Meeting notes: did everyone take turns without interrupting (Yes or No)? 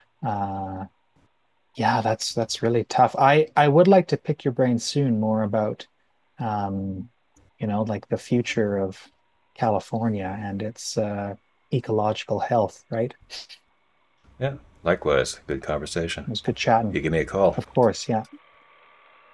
Yes